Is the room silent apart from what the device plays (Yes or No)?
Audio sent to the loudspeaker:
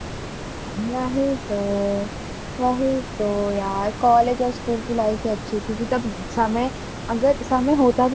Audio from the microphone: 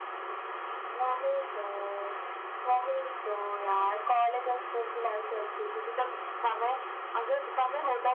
Yes